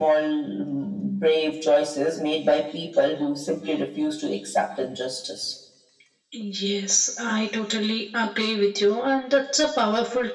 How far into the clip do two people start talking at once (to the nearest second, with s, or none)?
none